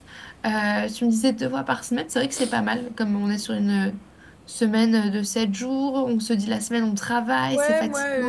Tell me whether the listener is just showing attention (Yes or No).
No